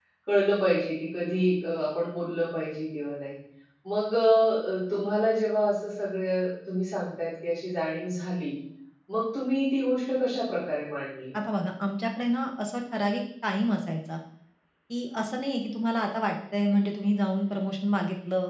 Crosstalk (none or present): none